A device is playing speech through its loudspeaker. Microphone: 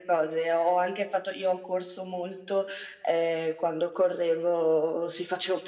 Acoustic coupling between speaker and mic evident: Yes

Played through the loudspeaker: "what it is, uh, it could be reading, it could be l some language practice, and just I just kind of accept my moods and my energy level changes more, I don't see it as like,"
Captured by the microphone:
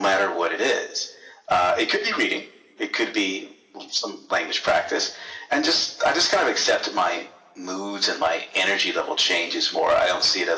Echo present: Yes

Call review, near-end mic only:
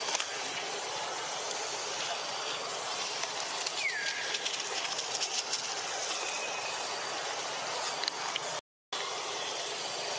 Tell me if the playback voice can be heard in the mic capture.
No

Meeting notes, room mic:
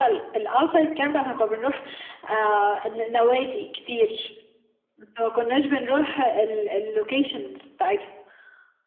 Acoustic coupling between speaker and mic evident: Yes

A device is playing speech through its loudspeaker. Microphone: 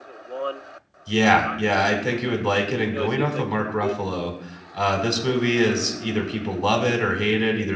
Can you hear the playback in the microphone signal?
Yes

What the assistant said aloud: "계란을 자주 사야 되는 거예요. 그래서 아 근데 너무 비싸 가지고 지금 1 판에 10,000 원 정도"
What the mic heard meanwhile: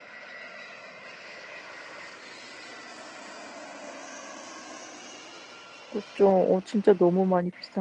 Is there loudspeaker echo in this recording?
No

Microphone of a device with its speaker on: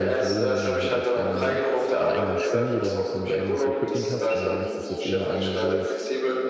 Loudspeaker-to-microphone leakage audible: Yes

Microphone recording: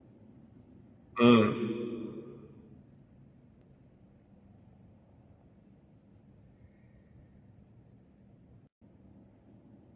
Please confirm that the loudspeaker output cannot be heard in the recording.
Yes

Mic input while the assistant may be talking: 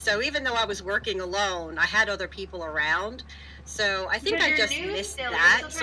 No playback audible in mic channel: No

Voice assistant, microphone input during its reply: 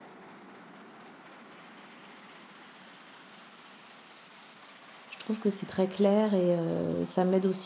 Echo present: No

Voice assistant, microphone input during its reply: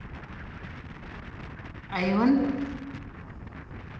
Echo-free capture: Yes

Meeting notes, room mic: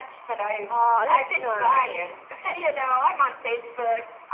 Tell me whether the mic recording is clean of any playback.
No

